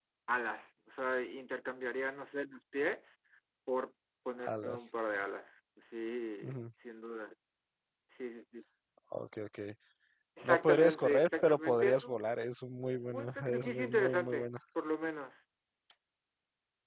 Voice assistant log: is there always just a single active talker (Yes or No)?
No